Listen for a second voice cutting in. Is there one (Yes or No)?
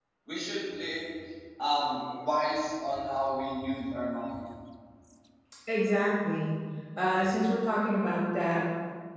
No